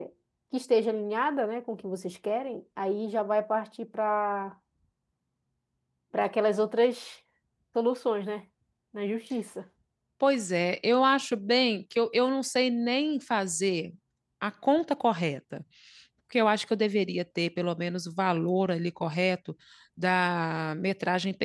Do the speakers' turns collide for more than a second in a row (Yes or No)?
No